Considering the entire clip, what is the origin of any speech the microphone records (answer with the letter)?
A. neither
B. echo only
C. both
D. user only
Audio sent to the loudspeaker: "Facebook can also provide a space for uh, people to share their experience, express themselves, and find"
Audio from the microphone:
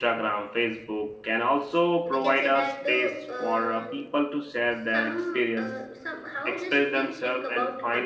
C